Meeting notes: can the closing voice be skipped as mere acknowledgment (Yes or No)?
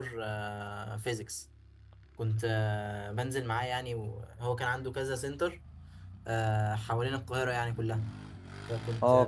No